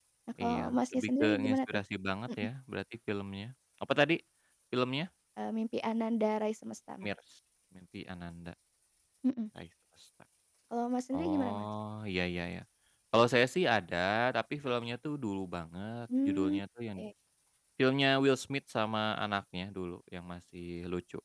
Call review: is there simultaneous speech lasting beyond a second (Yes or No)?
Yes